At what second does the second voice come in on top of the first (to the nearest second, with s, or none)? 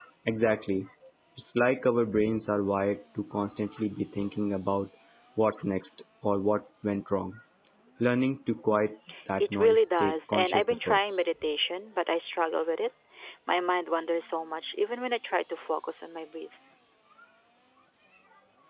9 s